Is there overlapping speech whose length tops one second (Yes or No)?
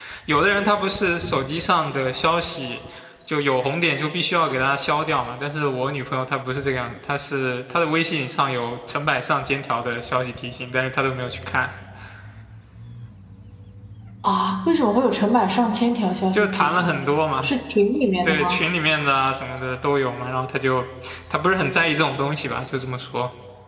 No